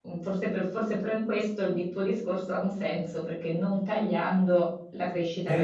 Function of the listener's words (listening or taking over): taking over